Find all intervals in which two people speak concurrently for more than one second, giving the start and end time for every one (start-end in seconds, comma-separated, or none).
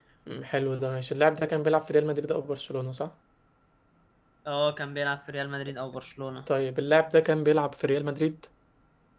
none